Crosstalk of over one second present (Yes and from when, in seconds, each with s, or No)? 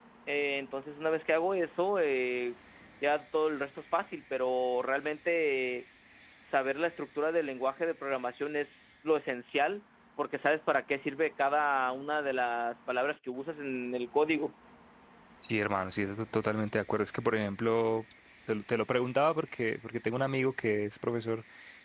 No